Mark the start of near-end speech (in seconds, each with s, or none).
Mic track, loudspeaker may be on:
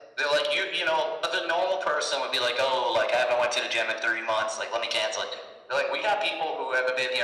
none